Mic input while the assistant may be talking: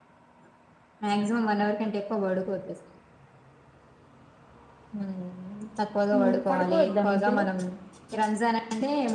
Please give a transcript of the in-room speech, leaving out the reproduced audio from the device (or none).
హ్మ్ పడుకోవద్ద మధ్యలో